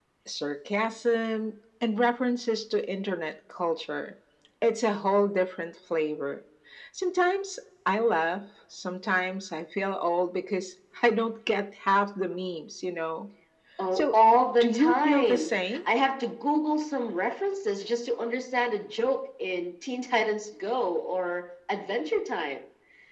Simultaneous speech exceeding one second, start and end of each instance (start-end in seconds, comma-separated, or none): 14.6-15.8